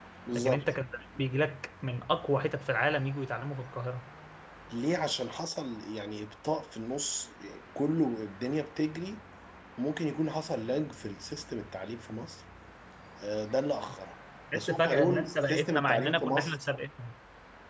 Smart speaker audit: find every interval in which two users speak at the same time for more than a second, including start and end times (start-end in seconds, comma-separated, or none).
14.5-16.6